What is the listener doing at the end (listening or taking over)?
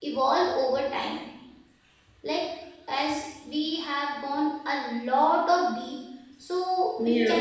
listening